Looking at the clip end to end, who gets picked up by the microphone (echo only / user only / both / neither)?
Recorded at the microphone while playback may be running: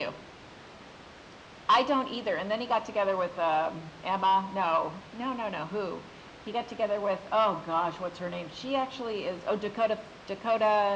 echo only